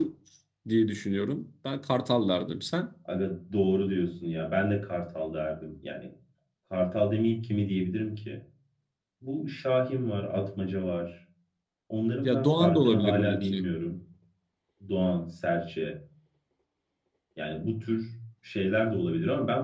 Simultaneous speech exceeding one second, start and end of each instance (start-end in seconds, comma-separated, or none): 12.2-13.7